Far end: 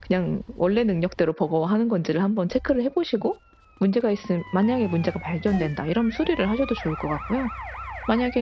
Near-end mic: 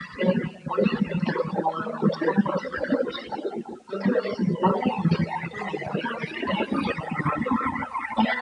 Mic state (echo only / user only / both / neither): echo only